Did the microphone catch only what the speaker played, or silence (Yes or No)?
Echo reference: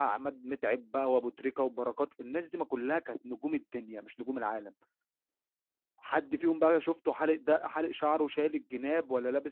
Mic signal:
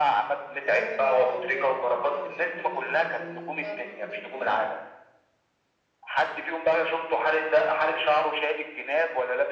No